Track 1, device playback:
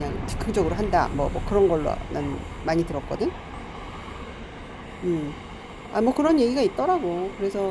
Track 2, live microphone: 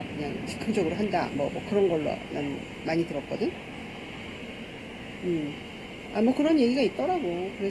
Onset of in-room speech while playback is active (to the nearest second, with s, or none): none